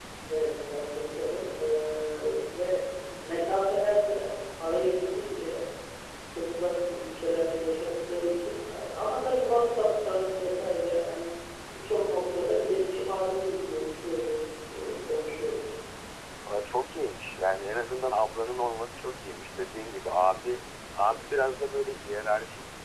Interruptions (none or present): none